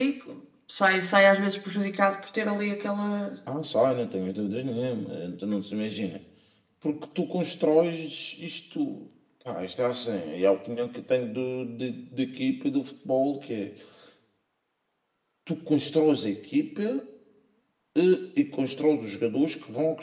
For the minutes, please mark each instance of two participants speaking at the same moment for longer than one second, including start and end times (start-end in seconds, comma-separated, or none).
none